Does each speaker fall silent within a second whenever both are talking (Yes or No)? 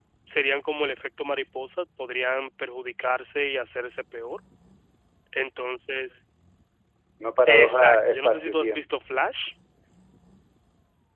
No